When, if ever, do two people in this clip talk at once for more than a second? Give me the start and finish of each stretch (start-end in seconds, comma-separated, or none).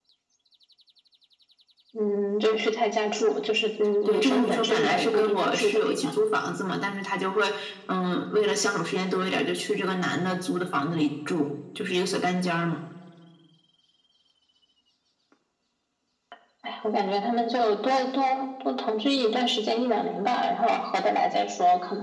4.0-6.0